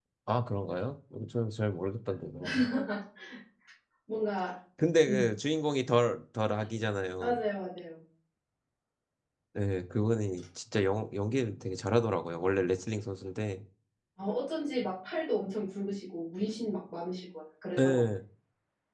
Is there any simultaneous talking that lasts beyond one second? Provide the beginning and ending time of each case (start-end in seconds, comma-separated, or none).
none